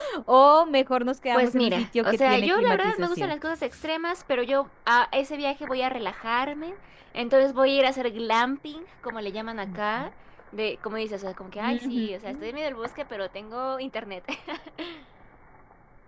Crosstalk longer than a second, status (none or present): present